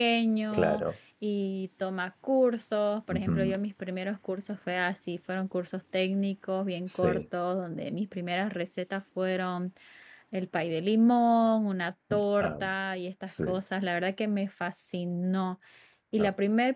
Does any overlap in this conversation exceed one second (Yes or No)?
No